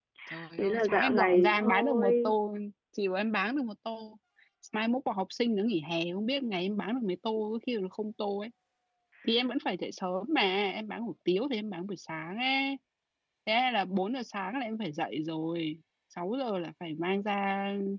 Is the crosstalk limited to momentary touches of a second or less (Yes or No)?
No